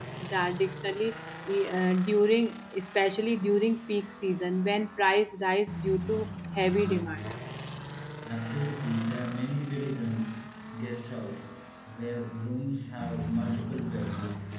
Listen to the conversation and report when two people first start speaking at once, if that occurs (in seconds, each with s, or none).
none